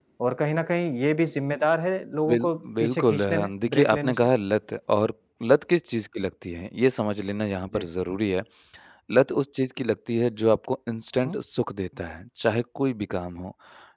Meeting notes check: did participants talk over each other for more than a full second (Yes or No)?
Yes